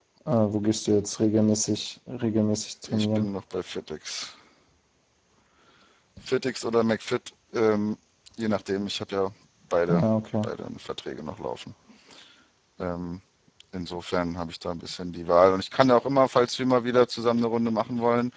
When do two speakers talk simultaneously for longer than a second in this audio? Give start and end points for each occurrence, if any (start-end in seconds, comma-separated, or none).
none